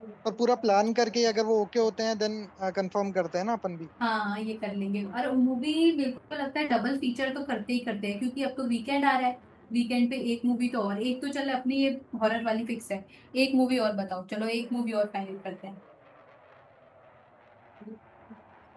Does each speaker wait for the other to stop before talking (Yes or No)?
Yes